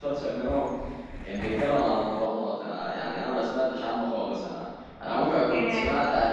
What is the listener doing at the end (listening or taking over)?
listening